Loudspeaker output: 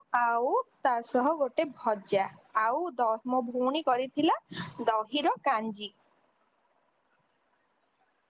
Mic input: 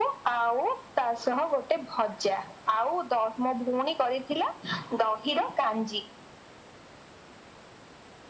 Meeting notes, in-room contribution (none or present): none